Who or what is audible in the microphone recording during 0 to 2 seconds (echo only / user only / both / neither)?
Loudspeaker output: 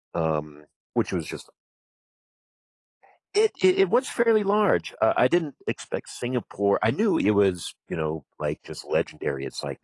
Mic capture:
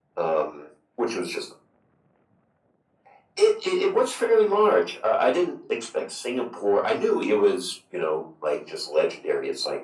echo only